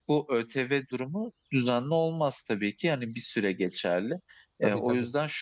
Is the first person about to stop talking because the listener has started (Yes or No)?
No